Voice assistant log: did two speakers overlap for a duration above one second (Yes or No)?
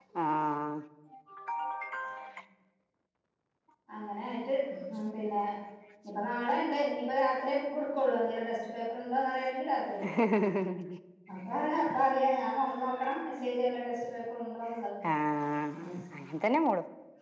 No